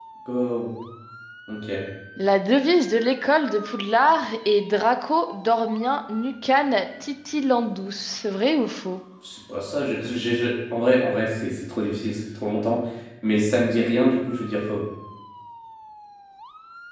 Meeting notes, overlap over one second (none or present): none